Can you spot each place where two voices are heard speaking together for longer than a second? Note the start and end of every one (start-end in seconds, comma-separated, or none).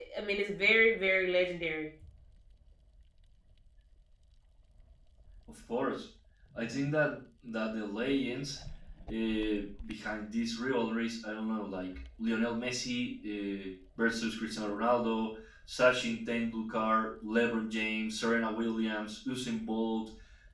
none